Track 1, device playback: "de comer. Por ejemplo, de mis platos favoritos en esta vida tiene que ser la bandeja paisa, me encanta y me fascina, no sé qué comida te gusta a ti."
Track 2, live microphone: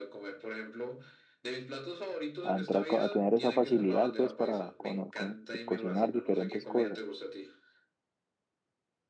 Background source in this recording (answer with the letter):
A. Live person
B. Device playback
B